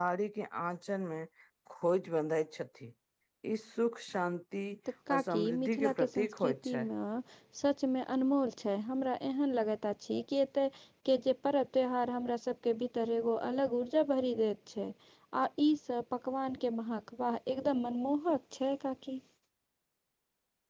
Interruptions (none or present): present